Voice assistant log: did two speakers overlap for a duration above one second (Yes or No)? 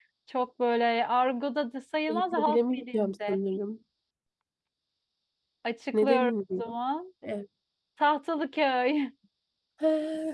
Yes